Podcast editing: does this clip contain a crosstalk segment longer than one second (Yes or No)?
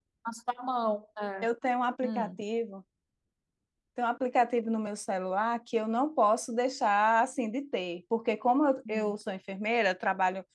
No